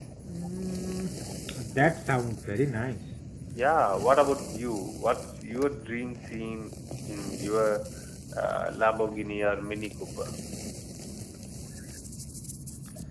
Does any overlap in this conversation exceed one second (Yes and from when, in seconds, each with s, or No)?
No